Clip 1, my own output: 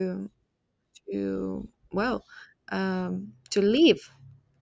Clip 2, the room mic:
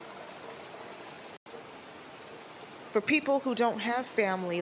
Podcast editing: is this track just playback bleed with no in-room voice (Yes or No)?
No